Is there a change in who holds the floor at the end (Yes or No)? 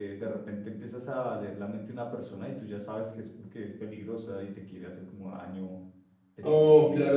Yes